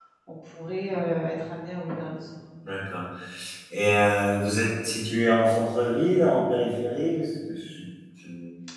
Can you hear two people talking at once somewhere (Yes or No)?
No